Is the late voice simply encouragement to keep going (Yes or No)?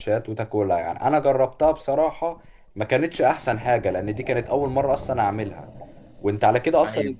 Yes